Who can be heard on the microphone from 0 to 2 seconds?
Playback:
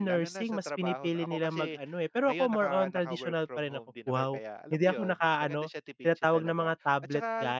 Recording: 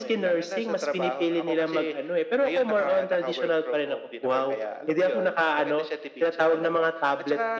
echo only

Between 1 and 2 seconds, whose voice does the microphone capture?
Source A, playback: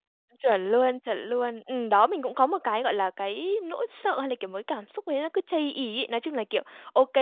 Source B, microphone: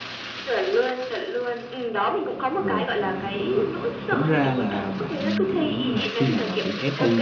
echo only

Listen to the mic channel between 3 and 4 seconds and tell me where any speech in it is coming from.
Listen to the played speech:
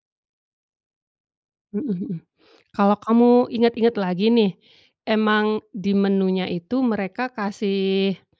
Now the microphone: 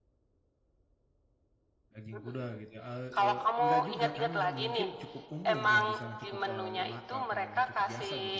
both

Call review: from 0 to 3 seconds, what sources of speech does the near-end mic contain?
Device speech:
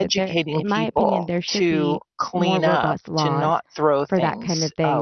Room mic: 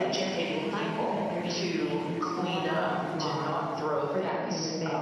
echo only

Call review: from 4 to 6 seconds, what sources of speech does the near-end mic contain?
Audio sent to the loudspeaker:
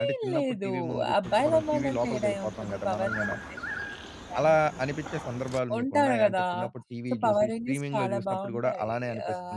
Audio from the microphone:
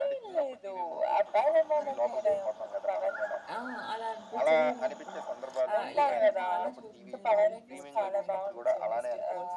both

